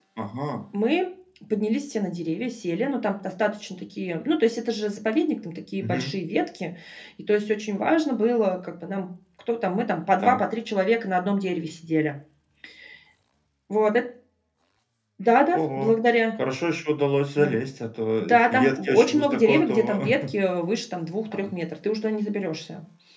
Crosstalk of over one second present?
Yes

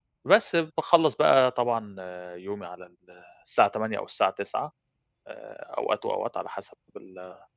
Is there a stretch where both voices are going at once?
No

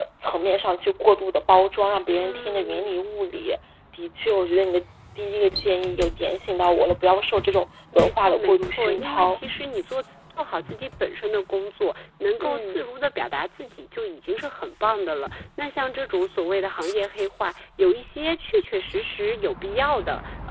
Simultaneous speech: Yes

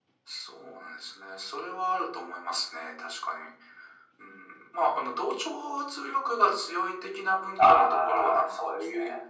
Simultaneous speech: Yes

